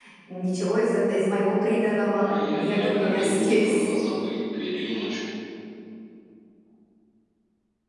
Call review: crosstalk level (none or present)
present